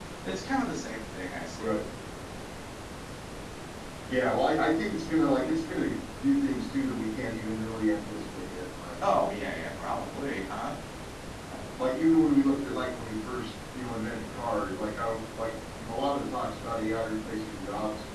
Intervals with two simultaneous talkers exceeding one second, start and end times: none

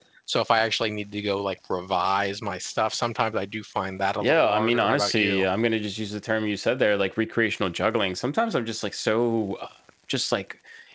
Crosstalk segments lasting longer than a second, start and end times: 4.2-5.4

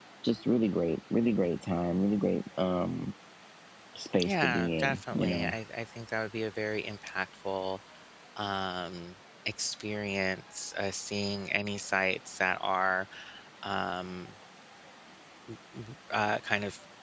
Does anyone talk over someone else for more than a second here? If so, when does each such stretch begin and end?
4.2-5.5

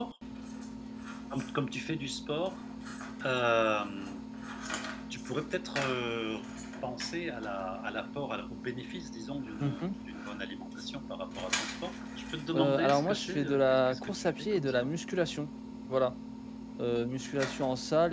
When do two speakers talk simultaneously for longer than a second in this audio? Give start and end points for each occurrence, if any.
12.5-14.7

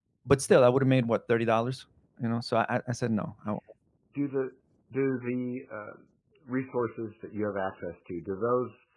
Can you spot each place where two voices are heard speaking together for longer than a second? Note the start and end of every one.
none

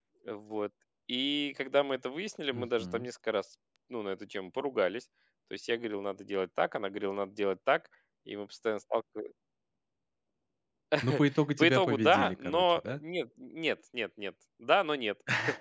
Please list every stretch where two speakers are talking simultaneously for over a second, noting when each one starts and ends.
11.6-13.0

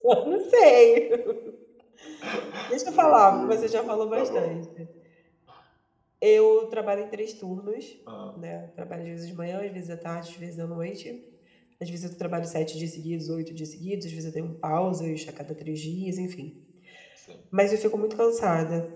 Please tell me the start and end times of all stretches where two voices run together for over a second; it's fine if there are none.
2.9-4.6

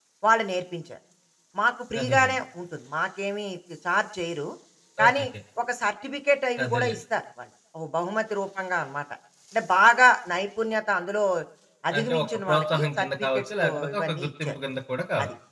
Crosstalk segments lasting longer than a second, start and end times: 12.0-14.5

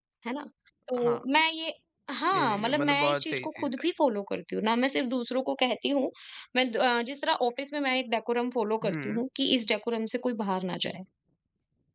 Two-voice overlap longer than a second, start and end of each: 2.3-3.8

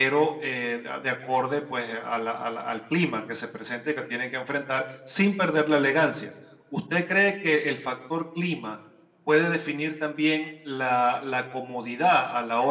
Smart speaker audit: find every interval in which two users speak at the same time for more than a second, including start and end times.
none

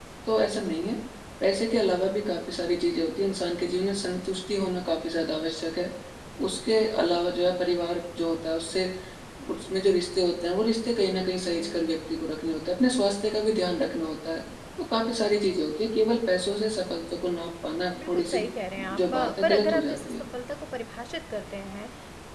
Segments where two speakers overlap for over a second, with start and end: 18.9-20.1

